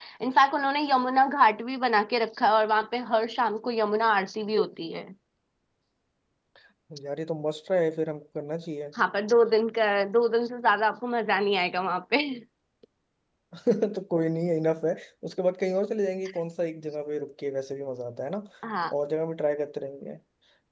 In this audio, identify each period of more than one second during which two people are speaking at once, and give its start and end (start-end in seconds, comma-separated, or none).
none